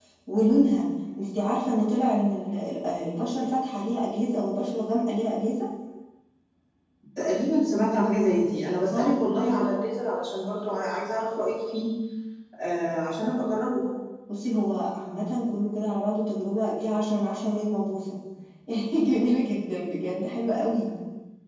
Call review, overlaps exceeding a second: none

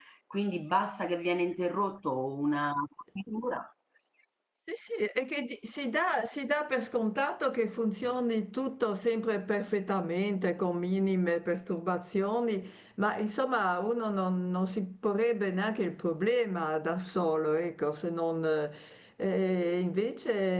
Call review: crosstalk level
none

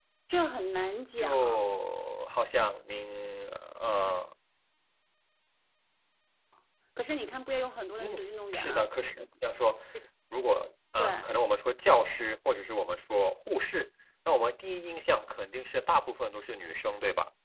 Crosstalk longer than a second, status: none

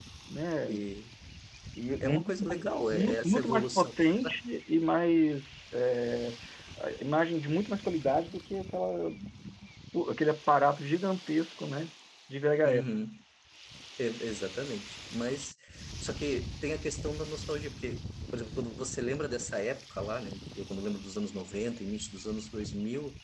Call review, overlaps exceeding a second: present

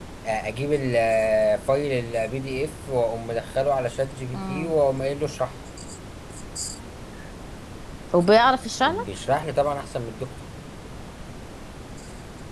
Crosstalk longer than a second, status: none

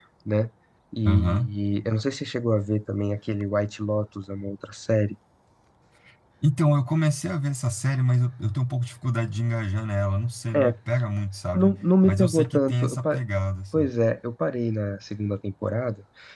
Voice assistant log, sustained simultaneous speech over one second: present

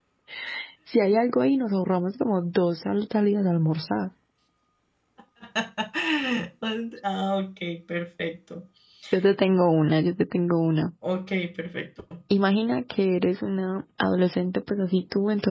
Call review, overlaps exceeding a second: none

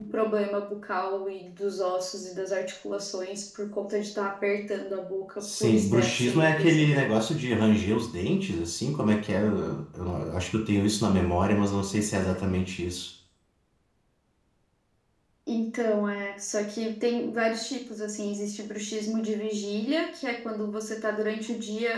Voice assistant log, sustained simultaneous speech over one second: present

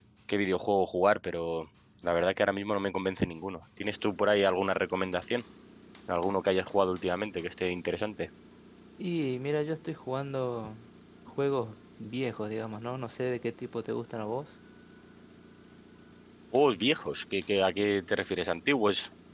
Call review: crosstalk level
none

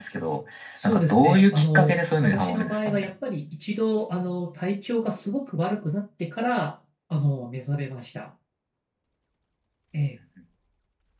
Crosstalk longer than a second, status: present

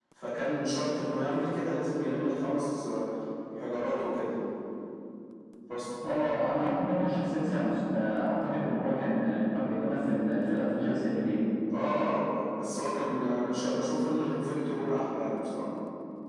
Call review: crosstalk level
none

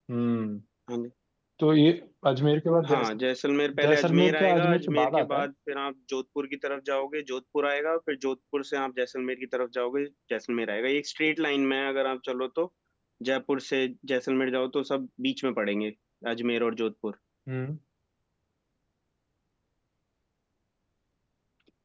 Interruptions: present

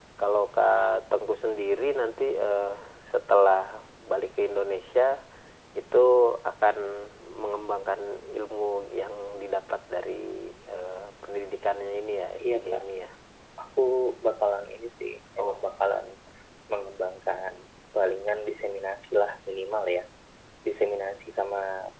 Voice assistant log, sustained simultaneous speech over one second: none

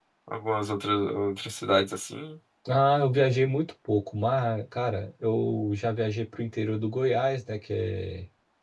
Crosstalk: none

